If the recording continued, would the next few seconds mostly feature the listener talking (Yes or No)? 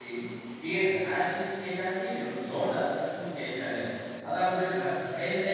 No